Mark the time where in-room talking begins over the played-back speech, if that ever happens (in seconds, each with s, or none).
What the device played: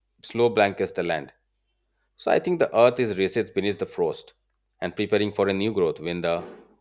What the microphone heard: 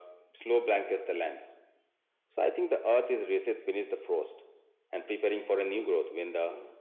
none